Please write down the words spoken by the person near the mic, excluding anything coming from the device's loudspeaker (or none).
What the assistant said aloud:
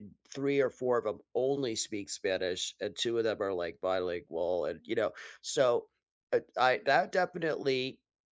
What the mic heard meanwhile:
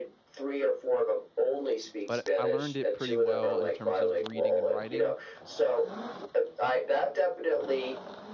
but I learned it pretty well in terms of reading and writing,